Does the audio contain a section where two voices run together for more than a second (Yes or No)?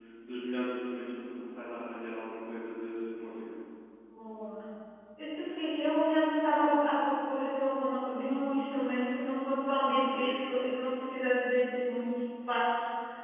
No